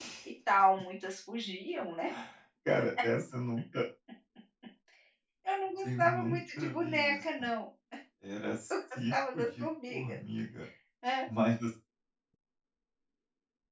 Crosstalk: present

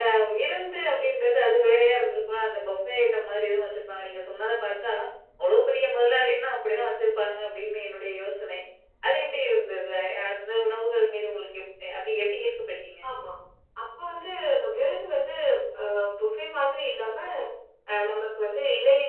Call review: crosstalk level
none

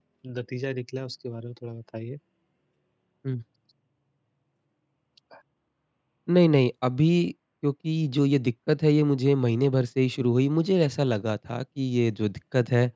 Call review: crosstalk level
none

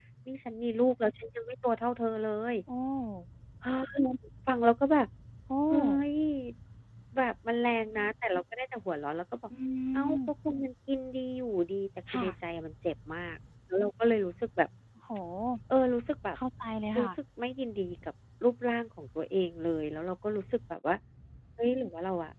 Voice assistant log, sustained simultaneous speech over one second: none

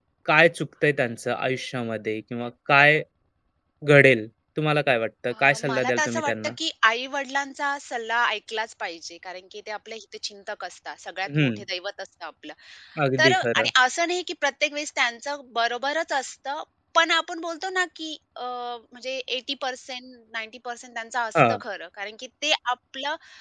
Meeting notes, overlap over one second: present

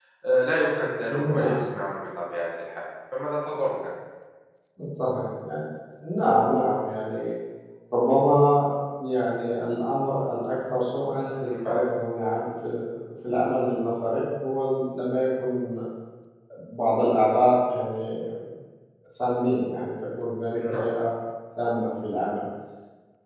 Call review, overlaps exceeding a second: none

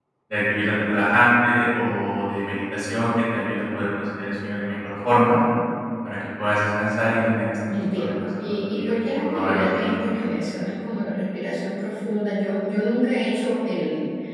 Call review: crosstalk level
present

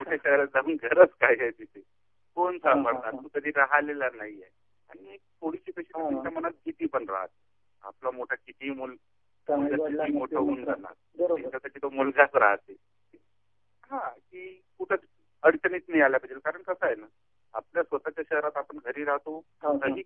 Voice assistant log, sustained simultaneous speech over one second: present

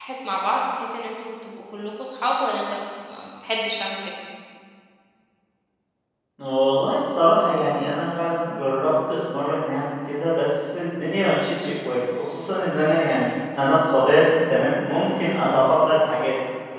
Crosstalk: none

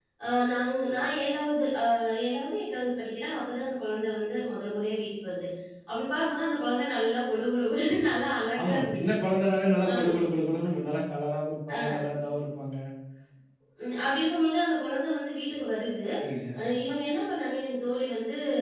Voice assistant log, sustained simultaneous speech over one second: none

